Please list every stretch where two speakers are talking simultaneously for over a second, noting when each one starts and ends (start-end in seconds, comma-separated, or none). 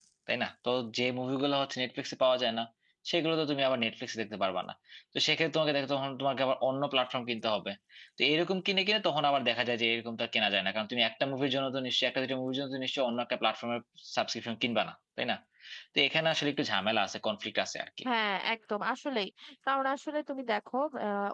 none